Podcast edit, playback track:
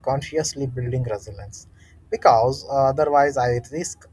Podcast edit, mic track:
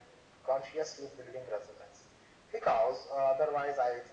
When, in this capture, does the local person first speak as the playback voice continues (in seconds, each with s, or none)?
none